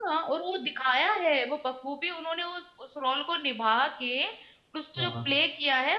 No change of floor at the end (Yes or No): Yes